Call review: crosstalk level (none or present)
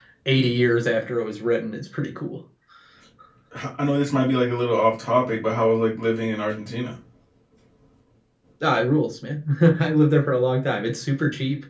none